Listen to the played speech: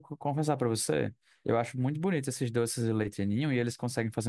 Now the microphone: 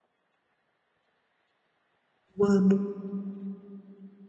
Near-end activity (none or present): present